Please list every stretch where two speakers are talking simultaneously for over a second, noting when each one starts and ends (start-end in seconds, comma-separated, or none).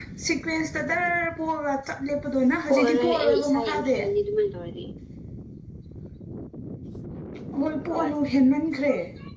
2.7-4.0